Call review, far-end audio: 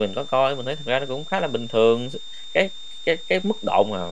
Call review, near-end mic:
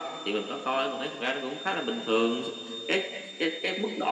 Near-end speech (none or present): none